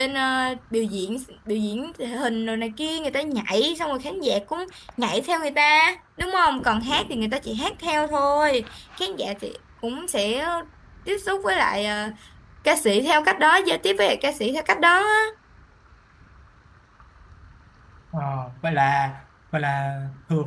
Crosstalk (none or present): none